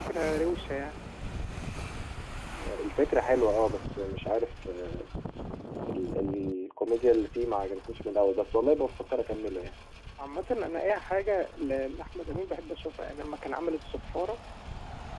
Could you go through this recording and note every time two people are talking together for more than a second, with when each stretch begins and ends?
none

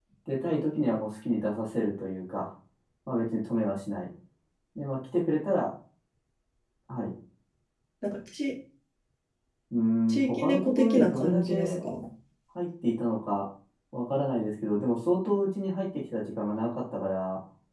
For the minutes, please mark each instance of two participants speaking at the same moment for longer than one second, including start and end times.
10.1-11.7

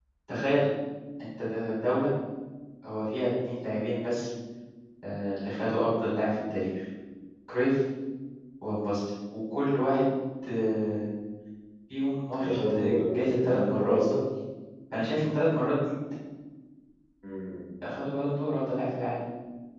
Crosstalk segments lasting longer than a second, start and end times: 12.3-14.0

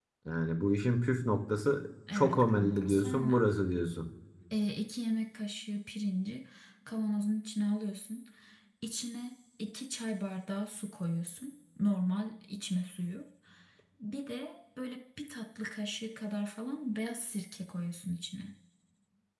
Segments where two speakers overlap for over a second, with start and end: 2.1-3.4

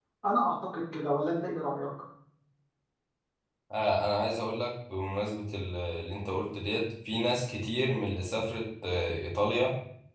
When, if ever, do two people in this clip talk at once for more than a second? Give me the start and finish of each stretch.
none

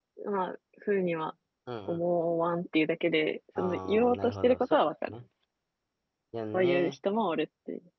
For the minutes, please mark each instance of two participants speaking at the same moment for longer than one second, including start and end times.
3.6-5.2

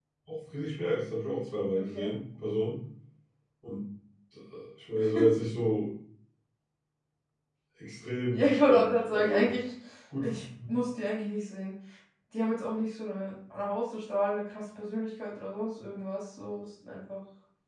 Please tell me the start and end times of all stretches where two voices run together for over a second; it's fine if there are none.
8.3-9.5

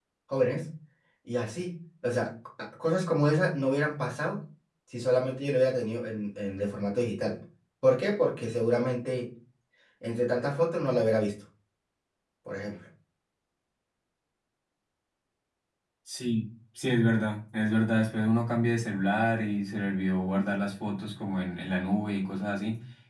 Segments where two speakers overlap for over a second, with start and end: none

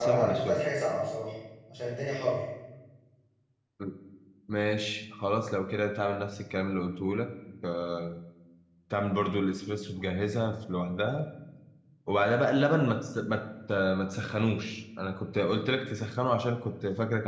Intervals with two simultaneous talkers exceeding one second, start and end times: none

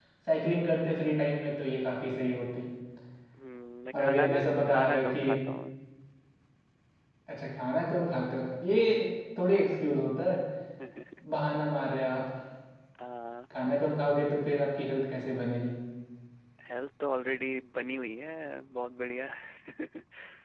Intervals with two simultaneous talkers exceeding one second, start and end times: 3.9-5.2

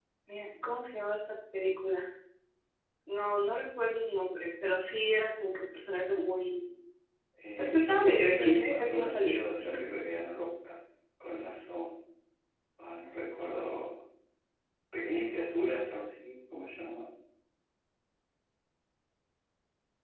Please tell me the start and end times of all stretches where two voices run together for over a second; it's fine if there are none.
7.6-9.4

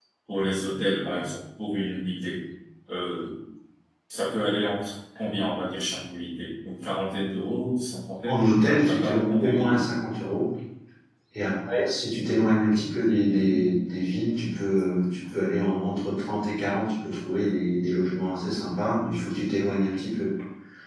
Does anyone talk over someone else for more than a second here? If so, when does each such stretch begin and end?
8.2-9.9

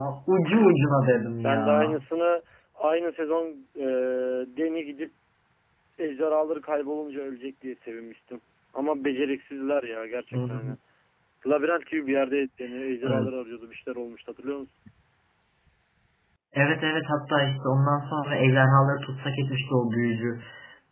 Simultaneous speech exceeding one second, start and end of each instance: none

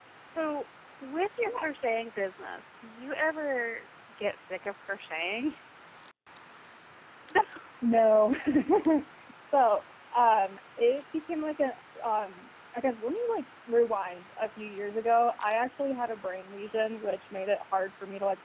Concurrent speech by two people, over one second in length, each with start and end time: none

